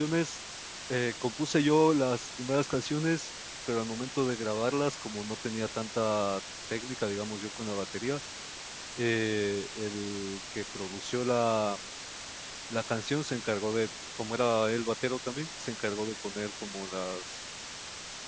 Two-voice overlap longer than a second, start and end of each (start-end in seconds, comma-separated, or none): none